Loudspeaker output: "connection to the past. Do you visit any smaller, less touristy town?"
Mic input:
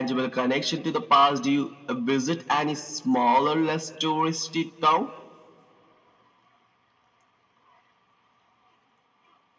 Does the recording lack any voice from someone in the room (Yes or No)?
Yes